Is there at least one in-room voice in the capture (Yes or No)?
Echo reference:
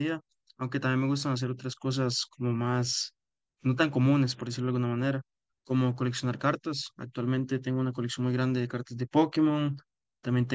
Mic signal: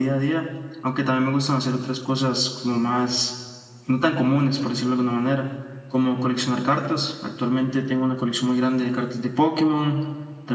No